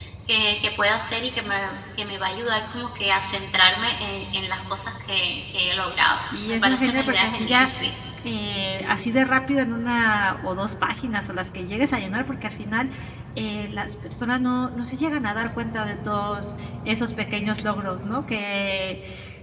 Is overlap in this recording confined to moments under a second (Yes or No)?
No